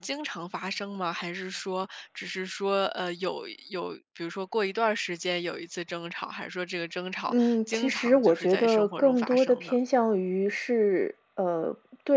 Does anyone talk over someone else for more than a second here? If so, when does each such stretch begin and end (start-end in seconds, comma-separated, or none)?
7.3-9.8